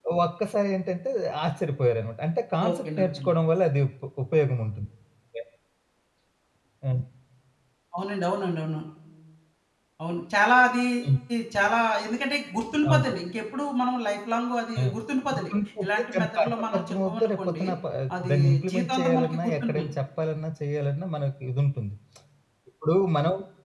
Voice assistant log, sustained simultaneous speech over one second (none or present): present